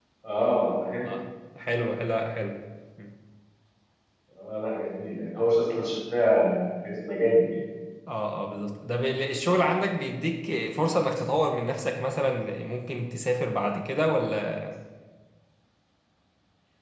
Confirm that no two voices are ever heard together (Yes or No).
Yes